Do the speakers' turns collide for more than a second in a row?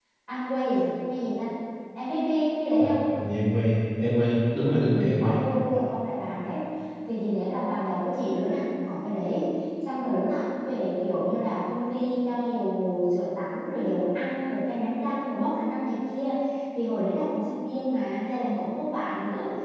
No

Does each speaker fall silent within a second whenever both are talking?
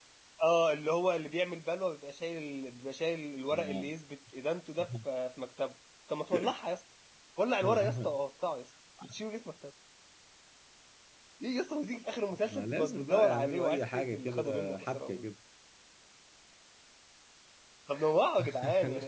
No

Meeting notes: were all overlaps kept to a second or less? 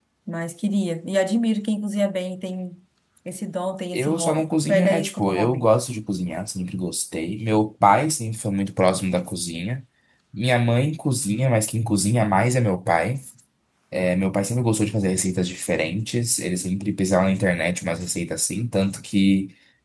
No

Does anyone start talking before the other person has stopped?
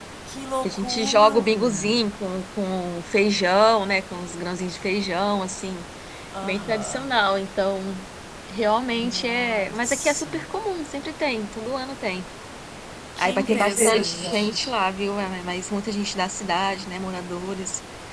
Yes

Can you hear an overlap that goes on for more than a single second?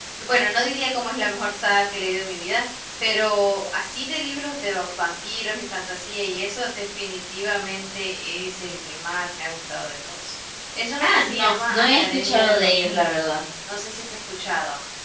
Yes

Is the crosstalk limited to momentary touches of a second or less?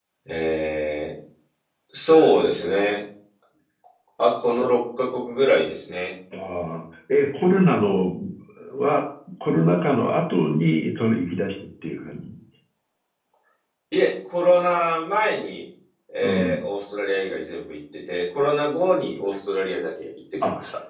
Yes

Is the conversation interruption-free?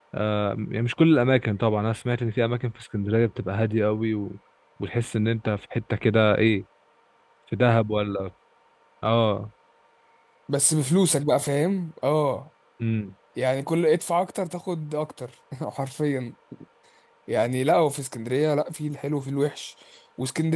Yes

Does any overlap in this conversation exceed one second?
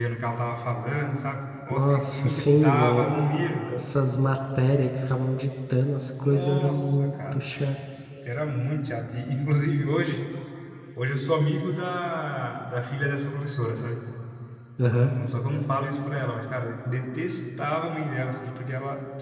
Yes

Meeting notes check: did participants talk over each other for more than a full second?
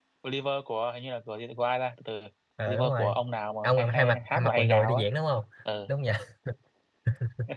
Yes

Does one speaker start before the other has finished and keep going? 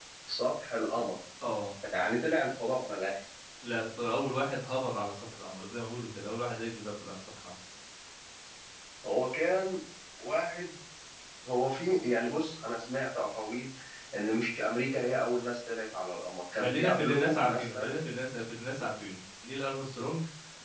Yes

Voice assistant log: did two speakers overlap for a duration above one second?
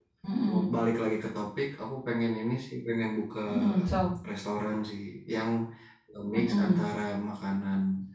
No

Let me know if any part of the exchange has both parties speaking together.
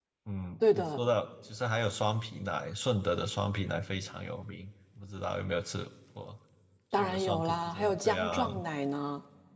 Yes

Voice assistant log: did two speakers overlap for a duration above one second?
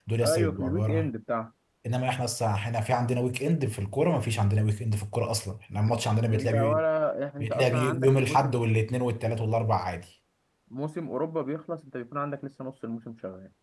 Yes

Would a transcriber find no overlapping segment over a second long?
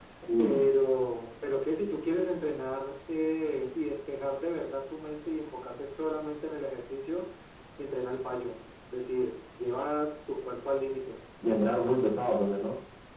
Yes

